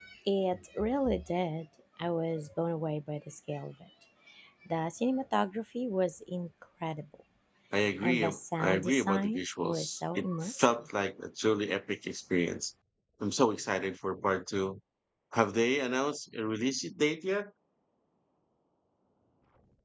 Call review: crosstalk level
present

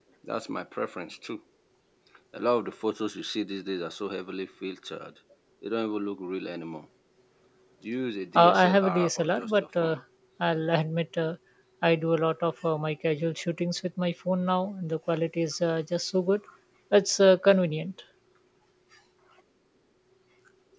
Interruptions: present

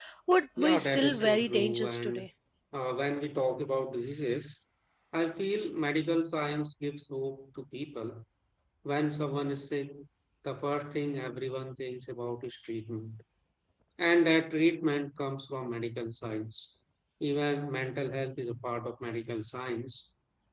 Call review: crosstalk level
present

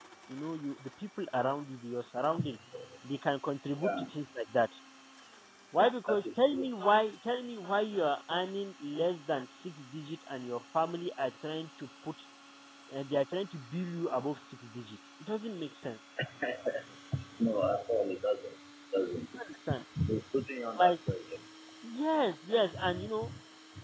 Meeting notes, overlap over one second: none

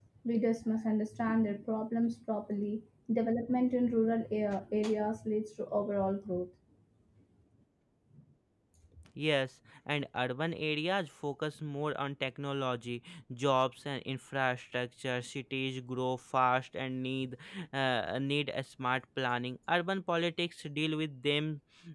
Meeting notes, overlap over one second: none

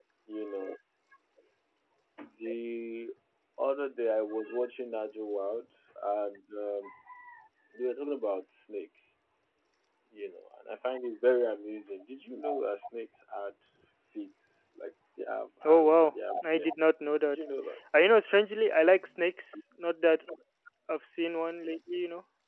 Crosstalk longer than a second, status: present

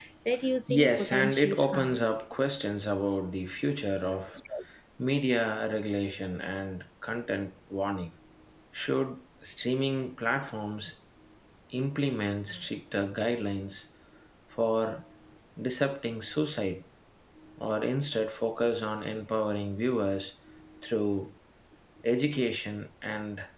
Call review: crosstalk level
present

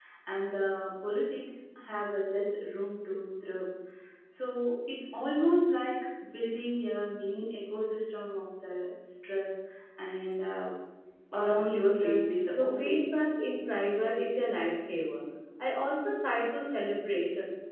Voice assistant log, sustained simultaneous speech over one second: present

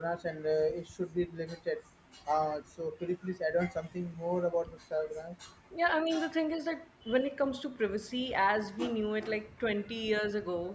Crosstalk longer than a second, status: none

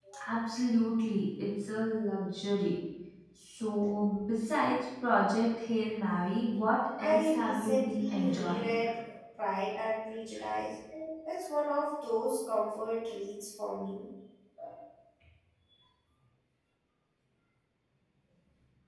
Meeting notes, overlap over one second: present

